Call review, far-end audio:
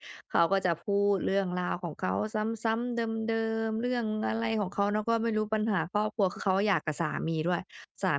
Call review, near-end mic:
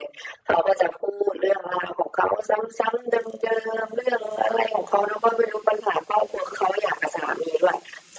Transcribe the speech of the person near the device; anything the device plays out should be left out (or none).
none